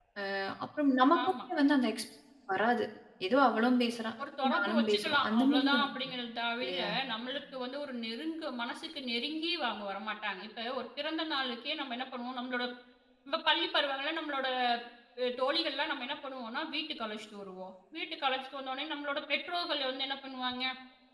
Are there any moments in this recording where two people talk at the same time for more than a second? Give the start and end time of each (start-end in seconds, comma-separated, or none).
4.6-5.9